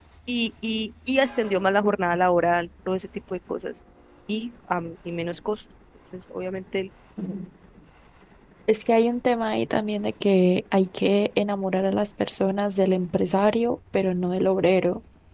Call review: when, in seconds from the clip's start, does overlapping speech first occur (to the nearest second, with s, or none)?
none